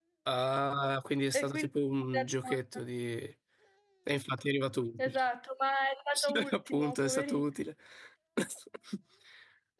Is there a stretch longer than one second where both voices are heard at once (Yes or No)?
Yes